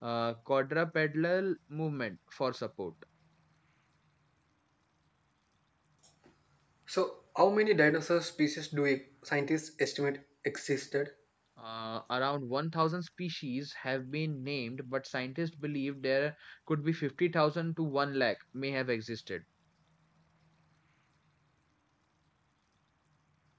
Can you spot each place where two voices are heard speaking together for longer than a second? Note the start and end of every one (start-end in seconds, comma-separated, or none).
none